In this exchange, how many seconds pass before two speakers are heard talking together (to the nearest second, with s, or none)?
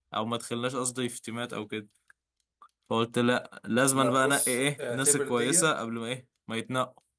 4 s